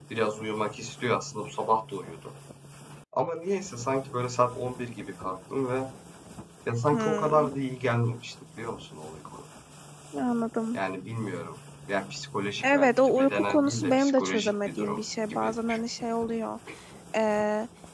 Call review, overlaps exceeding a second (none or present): present